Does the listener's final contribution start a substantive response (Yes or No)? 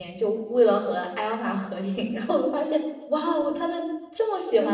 Yes